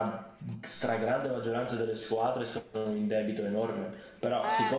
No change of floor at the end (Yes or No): Yes